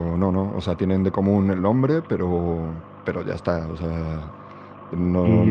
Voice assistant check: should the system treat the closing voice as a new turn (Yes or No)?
Yes